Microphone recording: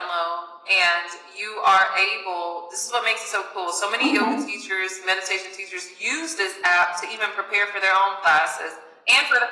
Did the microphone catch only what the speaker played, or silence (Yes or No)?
No